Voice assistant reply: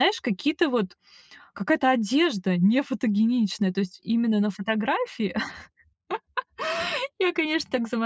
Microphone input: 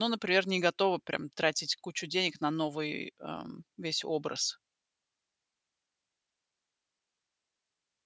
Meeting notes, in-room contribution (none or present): present